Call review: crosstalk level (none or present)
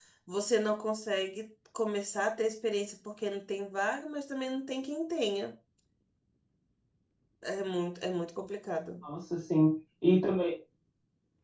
none